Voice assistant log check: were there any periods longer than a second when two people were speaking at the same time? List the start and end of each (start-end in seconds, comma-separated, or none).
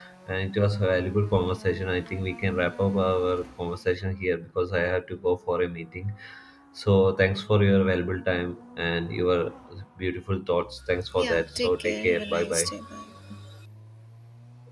11.2-12.7